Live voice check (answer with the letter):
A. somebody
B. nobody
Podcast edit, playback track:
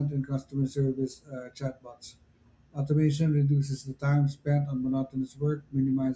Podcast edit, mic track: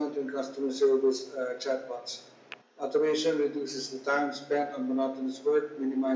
B